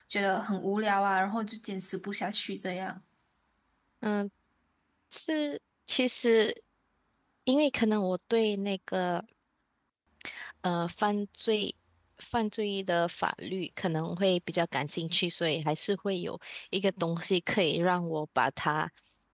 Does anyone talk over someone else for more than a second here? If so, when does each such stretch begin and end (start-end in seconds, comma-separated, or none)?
none